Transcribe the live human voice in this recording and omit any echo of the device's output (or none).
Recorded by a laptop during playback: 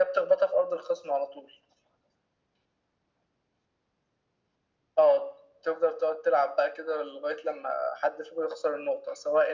none